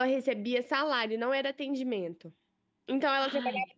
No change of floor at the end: Yes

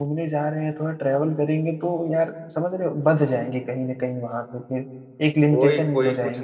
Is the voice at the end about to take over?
Yes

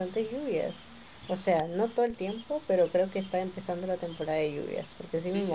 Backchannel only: No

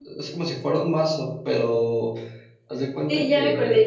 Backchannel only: No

